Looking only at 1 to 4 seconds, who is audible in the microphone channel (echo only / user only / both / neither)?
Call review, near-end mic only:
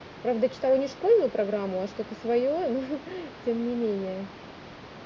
echo only